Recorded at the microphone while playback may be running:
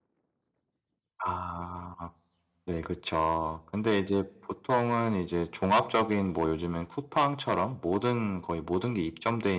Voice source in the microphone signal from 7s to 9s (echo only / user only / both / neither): user only